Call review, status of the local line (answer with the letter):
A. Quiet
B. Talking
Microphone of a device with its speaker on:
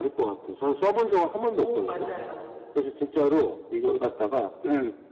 B